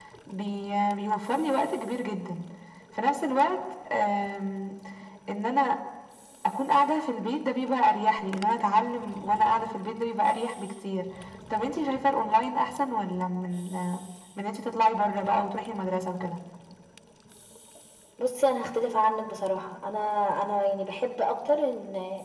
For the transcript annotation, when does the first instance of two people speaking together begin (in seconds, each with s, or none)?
none